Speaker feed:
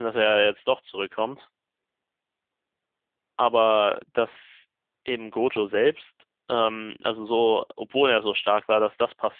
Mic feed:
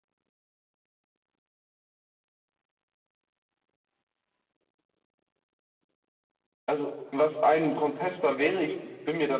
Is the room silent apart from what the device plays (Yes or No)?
No